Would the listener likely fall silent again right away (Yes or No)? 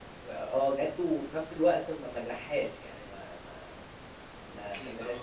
Yes